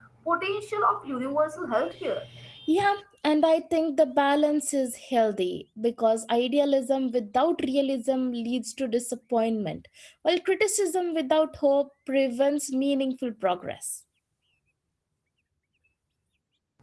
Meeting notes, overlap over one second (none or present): none